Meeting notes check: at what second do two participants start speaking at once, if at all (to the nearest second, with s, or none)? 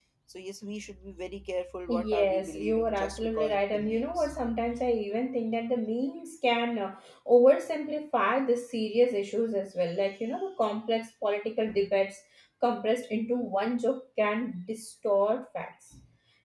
2 s